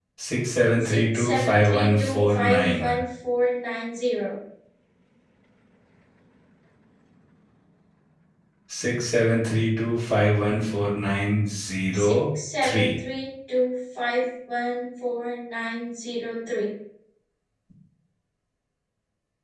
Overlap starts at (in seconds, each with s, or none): 0.8 s